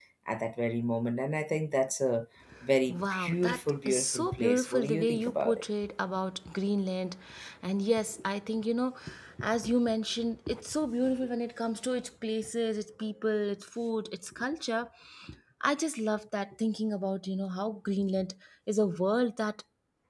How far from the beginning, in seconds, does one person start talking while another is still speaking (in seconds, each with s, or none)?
2.9 s